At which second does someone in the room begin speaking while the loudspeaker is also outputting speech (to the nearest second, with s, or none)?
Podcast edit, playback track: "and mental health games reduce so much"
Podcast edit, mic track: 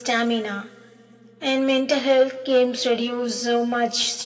none